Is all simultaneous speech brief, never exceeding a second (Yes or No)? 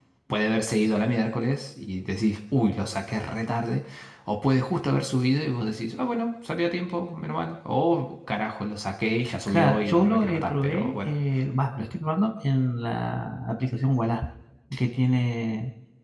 No